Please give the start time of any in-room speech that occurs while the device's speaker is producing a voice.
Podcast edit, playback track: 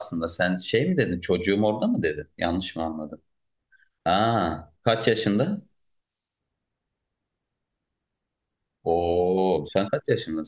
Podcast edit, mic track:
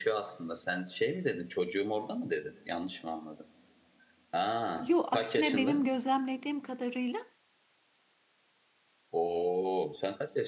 4.8 s

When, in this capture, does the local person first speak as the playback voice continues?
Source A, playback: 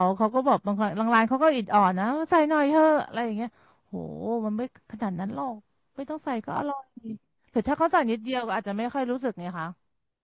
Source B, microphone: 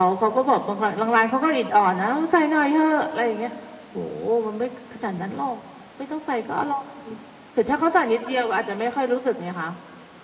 none

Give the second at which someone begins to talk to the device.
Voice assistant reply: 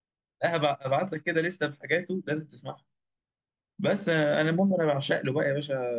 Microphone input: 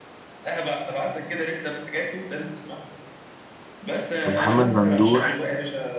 4.3 s

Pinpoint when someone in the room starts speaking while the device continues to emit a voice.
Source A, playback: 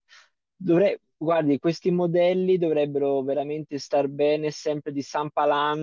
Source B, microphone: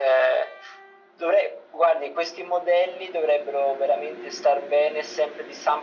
none

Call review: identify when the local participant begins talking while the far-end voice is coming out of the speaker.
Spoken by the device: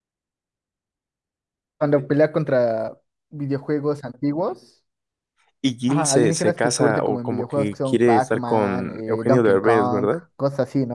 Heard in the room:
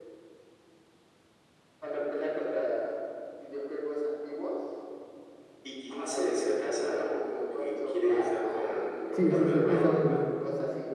9.1 s

